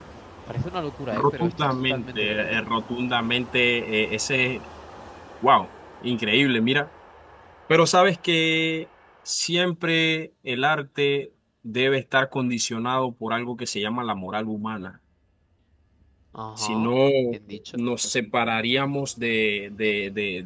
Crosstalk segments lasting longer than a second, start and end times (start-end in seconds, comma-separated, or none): 1.1-2.6